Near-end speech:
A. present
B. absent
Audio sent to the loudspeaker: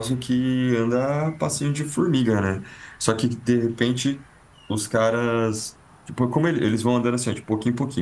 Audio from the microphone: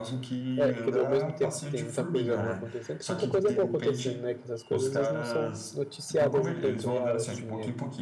A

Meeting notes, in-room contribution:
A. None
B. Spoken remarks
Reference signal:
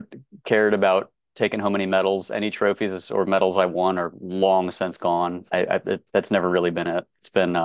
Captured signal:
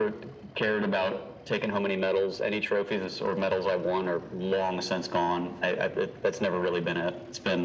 A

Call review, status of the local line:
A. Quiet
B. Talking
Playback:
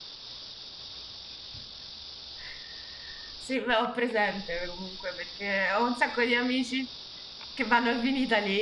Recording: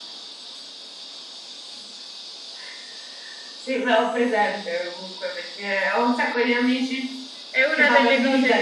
B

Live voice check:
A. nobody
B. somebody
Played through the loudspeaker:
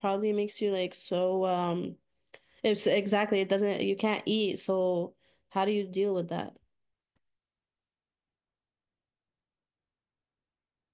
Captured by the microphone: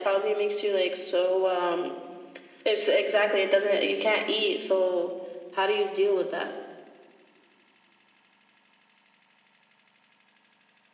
A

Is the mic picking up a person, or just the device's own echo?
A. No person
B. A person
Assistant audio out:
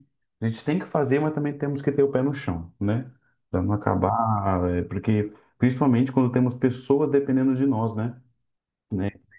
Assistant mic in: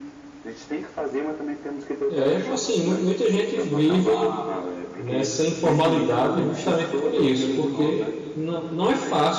B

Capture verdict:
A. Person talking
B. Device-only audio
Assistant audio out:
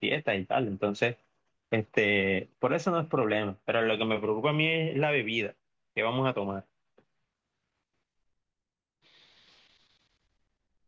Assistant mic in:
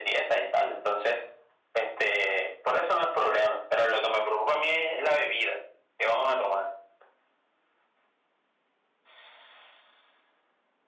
B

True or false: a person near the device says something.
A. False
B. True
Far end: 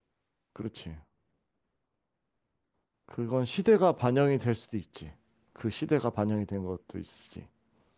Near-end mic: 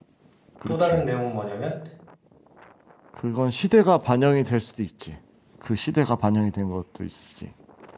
B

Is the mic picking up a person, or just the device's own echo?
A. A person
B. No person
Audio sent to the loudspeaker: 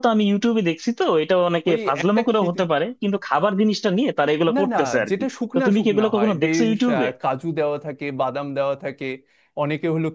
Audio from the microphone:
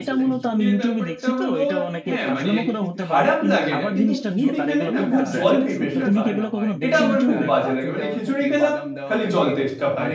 A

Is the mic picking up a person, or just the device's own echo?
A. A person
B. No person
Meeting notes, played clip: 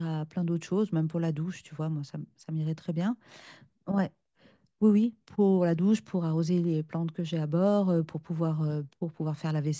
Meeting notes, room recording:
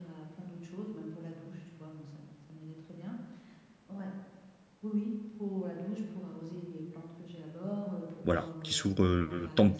A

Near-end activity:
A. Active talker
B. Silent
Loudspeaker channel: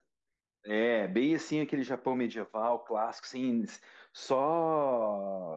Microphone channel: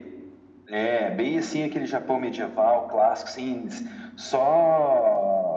B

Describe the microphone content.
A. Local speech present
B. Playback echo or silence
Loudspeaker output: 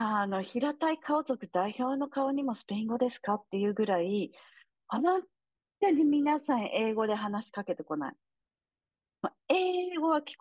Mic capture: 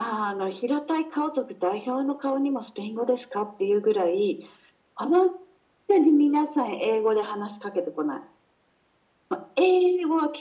B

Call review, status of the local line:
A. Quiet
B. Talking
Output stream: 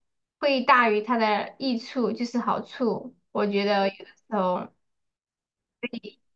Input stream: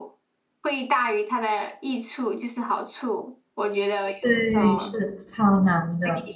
B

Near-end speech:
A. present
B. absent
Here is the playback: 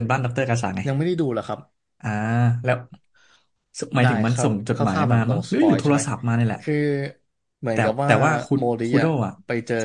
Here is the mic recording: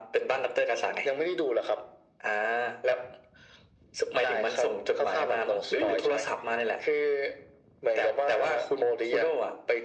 B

